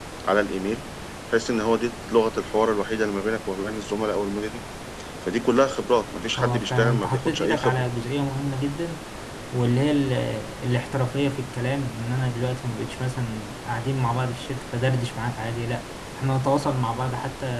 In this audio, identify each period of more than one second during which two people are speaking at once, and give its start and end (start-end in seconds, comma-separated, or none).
6.4-7.8